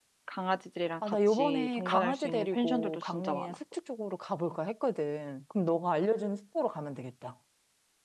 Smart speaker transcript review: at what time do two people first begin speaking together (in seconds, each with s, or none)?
1.1 s